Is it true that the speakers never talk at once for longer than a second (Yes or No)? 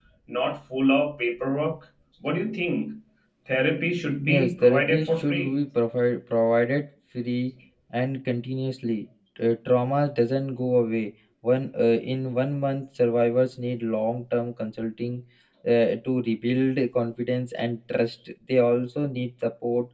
No